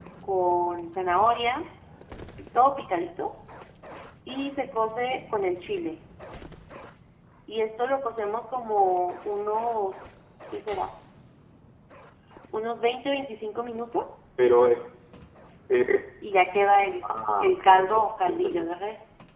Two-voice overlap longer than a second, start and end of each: 17.4-18.6

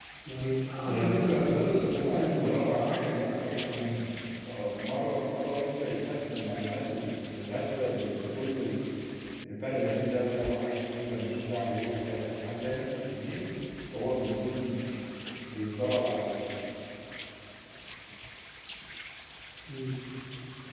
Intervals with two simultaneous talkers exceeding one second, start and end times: 0.8-3.0

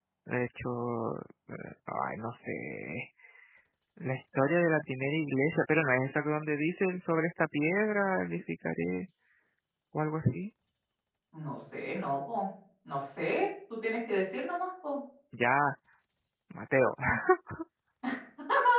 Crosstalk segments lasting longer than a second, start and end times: none

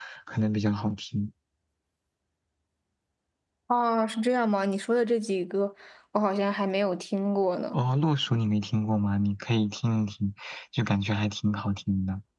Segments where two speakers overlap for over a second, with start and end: none

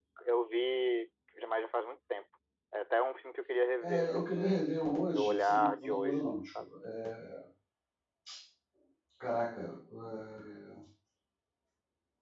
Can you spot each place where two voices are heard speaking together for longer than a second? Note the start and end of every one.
3.8-6.6

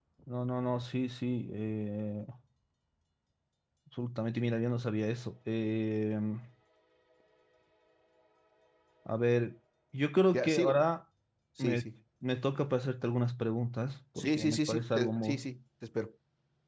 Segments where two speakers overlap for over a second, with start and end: 14.2-15.4

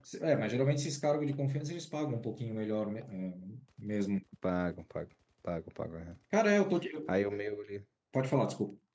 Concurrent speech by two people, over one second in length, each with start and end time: none

